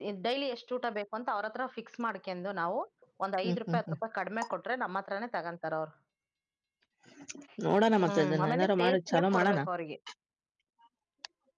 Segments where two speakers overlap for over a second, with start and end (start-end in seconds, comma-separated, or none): 8.0-9.6